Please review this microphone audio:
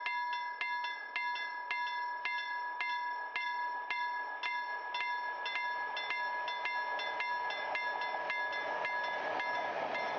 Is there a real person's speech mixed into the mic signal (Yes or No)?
No